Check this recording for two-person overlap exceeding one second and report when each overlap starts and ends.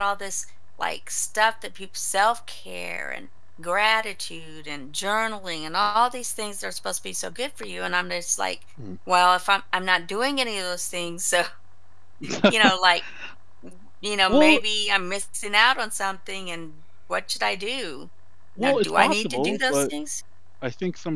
18.6-19.9

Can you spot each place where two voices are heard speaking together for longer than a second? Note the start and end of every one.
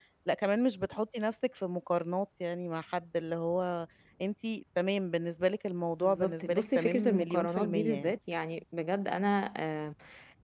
6.0-8.1

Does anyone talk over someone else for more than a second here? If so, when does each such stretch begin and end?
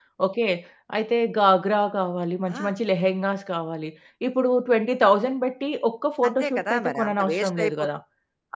6.3-7.9

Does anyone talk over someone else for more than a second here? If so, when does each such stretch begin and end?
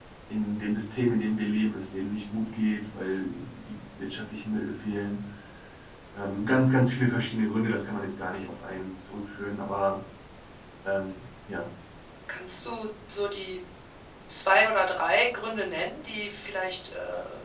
none

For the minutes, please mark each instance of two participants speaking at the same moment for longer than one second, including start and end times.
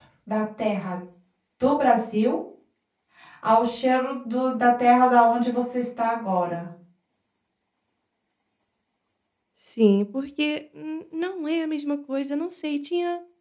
none

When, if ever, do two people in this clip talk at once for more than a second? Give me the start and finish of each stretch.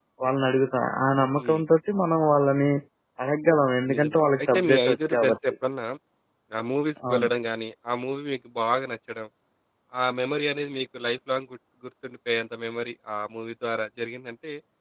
3.9-5.4

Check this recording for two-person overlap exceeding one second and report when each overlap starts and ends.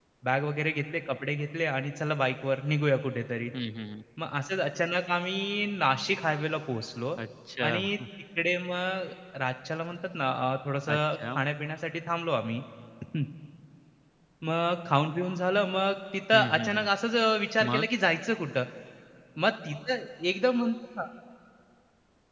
none

